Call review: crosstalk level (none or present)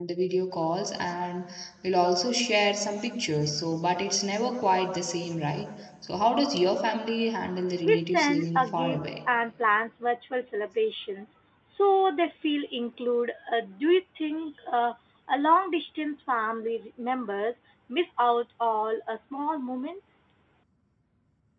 present